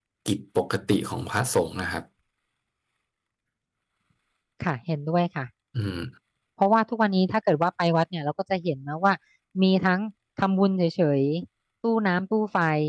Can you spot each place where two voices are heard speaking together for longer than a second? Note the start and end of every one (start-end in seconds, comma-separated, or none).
none